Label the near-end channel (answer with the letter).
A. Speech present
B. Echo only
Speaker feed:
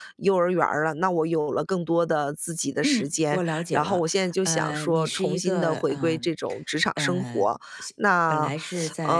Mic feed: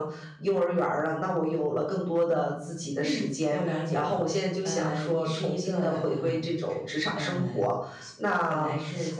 B